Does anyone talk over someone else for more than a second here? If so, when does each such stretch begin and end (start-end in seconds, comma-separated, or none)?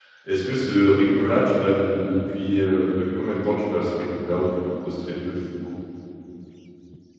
none